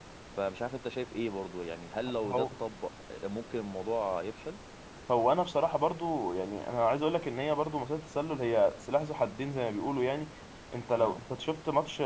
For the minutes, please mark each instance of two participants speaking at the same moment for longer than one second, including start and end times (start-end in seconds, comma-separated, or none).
none